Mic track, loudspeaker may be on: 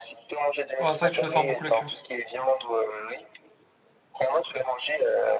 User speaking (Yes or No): Yes